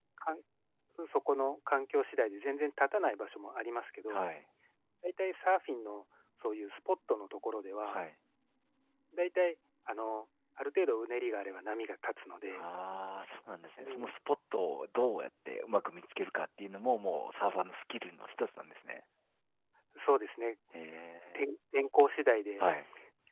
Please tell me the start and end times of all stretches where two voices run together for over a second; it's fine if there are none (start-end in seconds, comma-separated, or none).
none